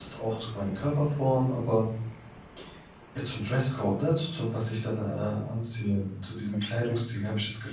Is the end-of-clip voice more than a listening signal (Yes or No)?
No